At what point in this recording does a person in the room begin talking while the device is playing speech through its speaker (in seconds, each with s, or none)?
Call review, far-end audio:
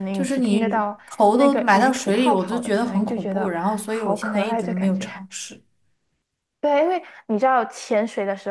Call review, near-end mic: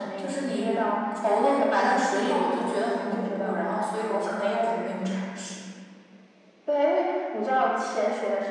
none